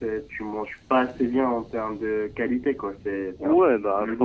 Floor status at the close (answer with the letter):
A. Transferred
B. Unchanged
A